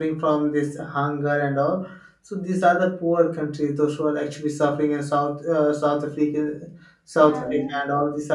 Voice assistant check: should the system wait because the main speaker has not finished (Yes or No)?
Yes